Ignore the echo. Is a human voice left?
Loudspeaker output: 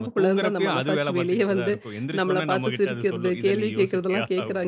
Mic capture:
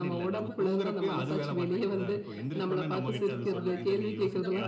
Yes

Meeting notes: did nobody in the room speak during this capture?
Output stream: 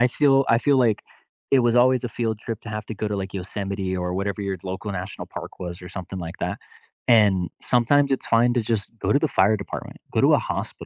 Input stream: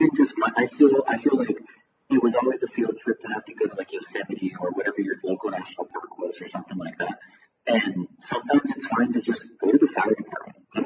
Yes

